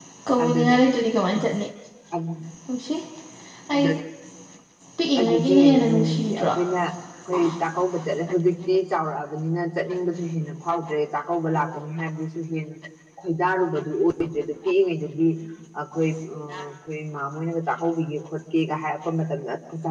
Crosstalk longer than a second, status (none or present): present